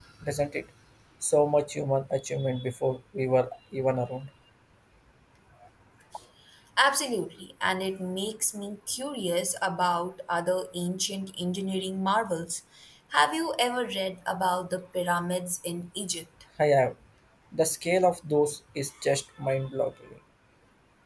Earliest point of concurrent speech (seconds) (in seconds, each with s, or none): none